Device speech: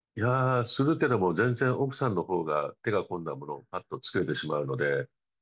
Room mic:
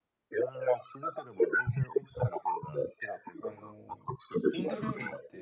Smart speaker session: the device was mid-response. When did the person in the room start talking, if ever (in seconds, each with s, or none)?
3.4 s